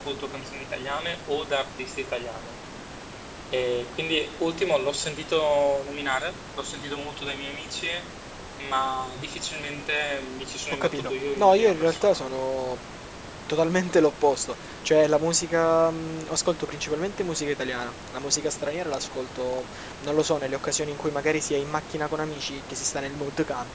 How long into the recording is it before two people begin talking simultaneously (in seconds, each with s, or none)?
10.7 s